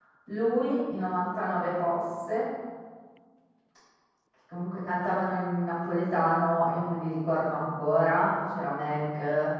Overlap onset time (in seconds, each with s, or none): none